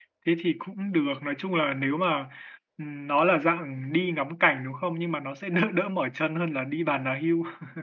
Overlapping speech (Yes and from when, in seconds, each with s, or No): No